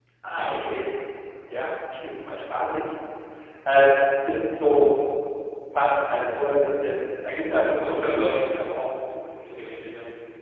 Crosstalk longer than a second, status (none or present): present